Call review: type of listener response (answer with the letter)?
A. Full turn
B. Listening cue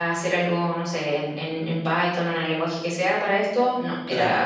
B